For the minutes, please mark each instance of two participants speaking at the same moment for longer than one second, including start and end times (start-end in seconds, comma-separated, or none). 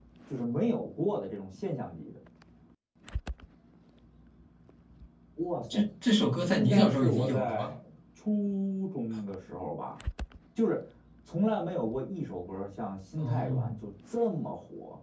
6.4-7.7